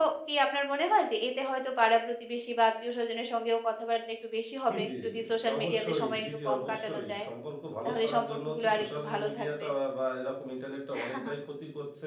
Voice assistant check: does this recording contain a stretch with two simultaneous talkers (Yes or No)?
Yes